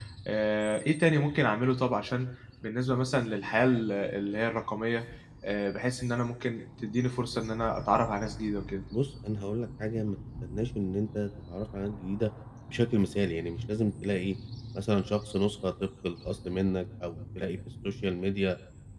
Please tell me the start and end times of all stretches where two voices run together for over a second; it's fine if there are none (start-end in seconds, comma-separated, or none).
none